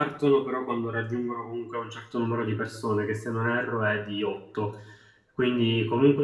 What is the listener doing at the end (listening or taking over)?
listening